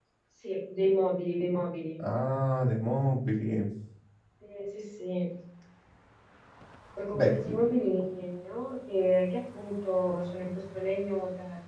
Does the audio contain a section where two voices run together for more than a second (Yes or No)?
No